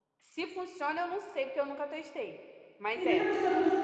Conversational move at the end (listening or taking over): taking over